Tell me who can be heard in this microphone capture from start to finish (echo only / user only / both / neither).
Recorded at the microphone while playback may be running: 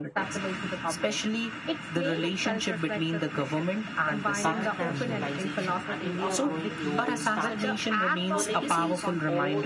both